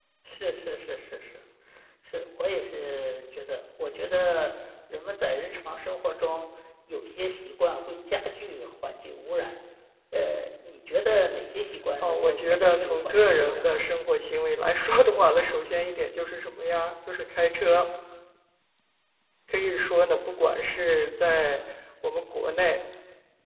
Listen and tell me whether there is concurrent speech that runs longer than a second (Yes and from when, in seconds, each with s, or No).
Yes, from 12.0 s